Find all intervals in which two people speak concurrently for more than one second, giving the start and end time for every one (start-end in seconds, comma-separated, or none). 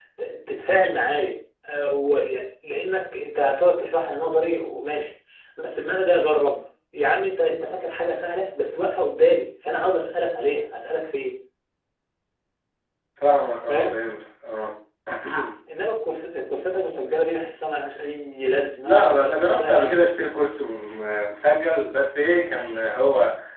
18.8-20.1